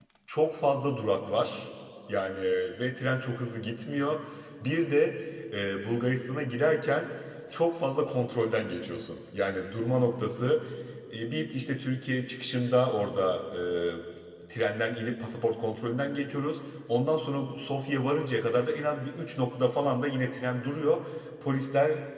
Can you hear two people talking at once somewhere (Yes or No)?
No